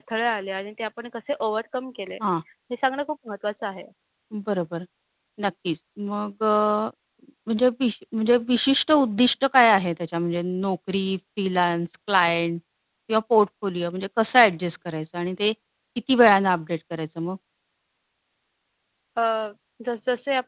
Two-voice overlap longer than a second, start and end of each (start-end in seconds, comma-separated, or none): none